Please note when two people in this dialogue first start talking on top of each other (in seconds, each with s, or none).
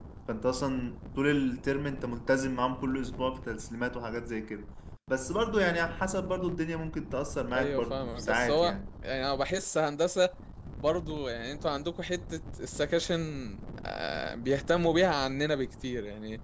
7.5 s